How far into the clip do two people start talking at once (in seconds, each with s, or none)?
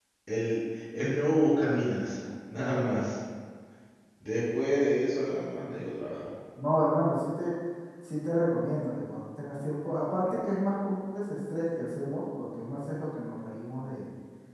none